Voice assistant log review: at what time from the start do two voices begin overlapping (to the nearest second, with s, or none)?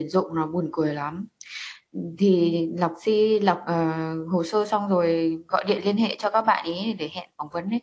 none